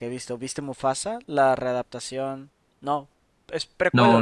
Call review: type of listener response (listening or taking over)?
taking over